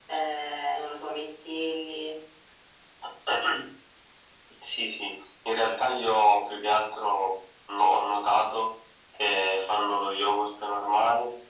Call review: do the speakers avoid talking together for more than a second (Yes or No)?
Yes